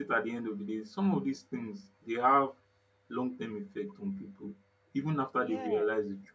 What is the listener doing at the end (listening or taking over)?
listening